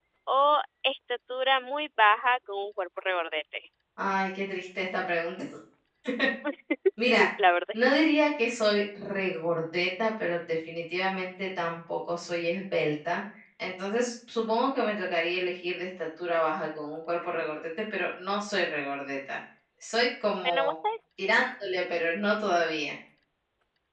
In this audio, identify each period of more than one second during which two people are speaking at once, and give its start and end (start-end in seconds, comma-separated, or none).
none